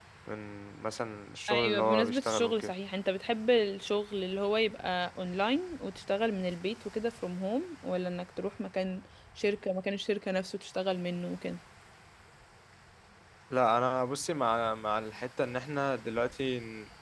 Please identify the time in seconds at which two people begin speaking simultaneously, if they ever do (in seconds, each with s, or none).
1.5 s